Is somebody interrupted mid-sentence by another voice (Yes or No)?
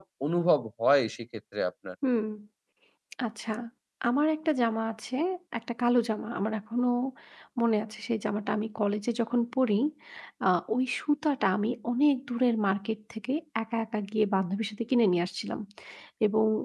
No